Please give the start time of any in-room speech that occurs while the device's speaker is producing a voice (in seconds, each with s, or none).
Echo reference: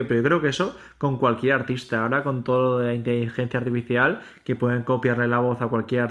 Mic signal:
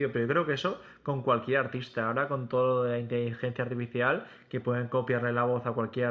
none